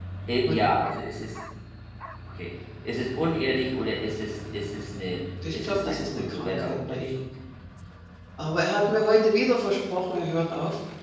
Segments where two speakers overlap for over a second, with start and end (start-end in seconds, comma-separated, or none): 5.5-7.1